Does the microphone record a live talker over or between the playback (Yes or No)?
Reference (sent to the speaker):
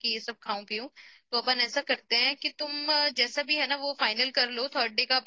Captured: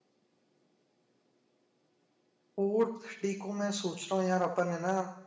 Yes